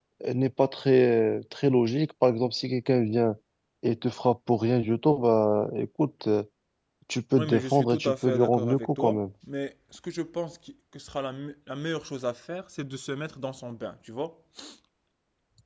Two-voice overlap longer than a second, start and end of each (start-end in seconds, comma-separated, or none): 7.3-9.2